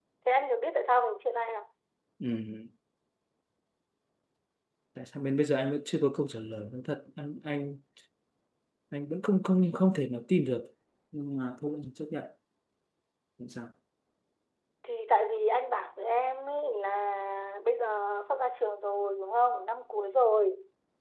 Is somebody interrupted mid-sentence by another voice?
No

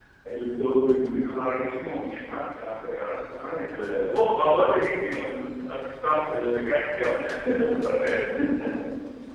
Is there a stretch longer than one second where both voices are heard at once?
Yes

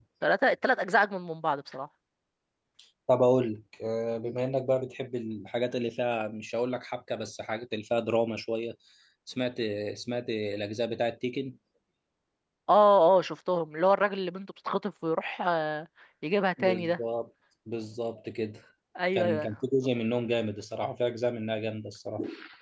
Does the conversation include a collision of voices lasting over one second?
No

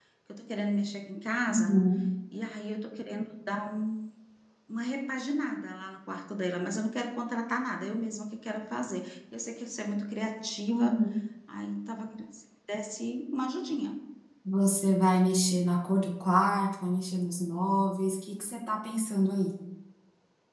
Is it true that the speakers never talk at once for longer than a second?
Yes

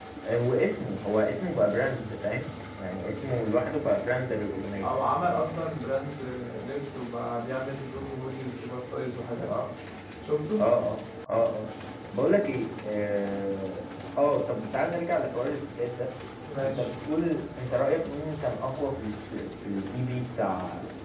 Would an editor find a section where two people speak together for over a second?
No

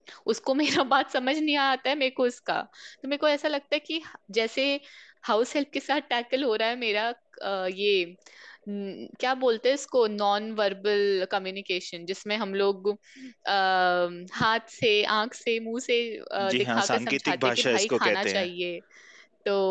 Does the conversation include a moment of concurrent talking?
Yes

